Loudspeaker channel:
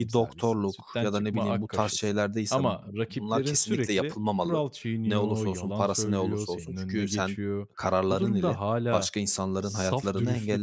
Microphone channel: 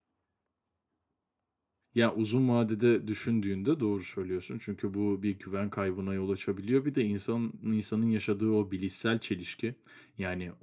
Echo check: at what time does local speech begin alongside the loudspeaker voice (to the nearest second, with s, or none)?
2 s